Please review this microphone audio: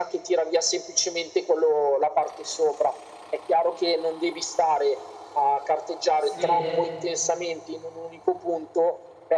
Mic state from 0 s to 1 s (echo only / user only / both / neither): echo only